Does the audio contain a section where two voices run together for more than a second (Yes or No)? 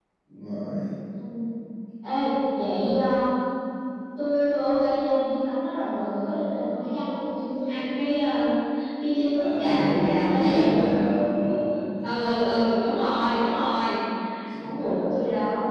Yes